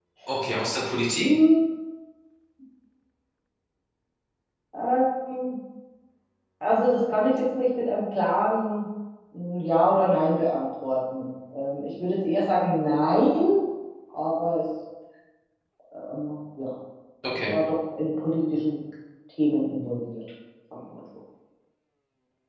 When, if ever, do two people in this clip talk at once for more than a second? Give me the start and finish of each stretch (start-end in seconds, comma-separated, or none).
none